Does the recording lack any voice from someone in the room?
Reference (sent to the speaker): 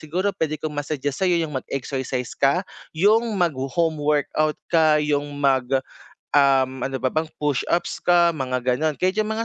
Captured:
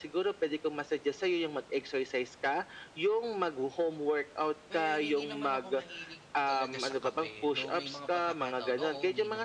No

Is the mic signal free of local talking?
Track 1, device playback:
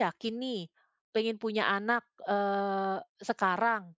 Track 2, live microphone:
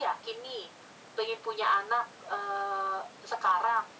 Yes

